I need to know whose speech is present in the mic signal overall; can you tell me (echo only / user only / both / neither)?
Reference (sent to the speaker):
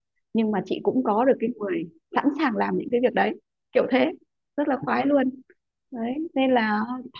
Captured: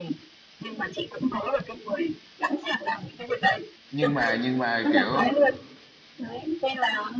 both